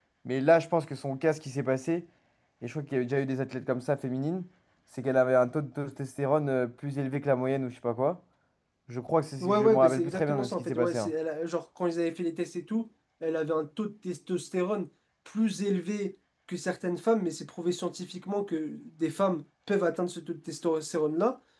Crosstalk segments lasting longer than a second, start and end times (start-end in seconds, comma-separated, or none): 9.4-11.1